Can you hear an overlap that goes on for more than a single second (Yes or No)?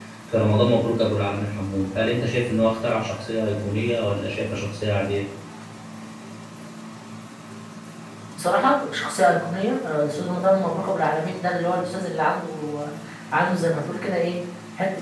No